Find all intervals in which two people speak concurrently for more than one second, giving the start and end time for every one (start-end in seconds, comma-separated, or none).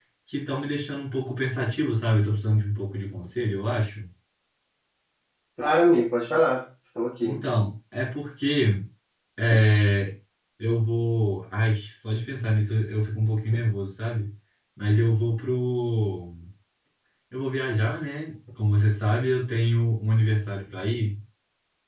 none